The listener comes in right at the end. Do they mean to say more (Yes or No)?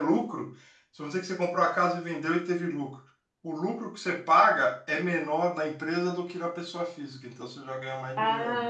Yes